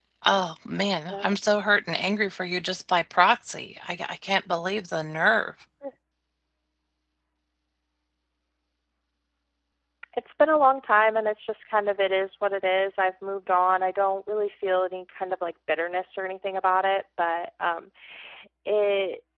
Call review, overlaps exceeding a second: none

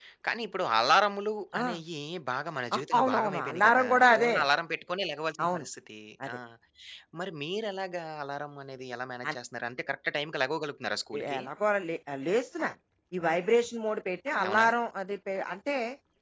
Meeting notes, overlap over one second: present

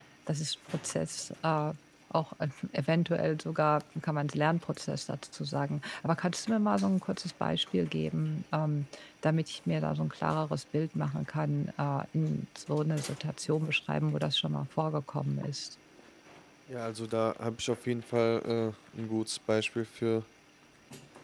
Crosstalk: none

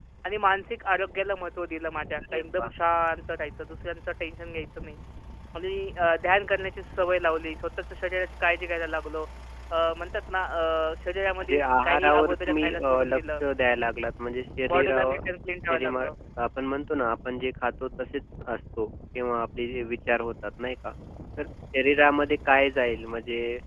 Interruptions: present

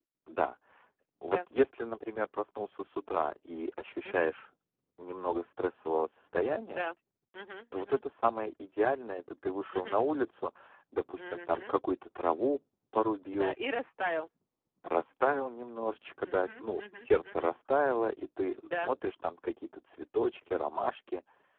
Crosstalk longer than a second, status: present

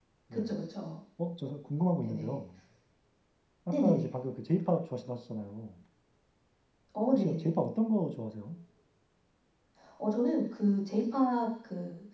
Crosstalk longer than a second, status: none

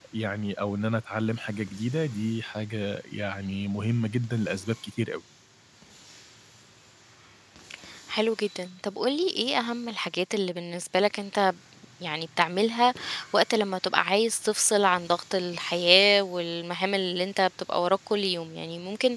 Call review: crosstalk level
none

